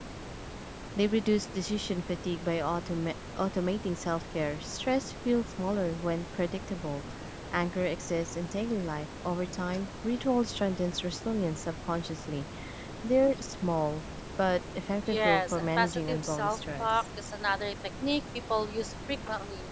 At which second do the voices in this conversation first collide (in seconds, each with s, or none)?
15.1 s